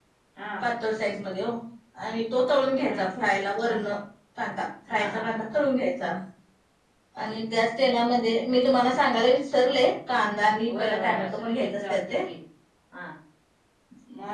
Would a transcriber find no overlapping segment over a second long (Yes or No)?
No